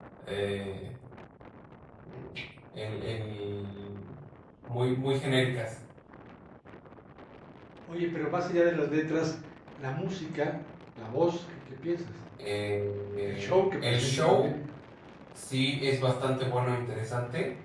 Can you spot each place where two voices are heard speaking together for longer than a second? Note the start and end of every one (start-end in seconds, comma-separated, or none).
13.2-14.5